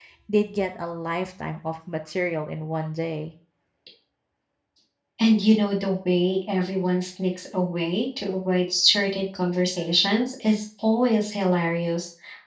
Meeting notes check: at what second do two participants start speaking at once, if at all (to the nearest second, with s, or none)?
none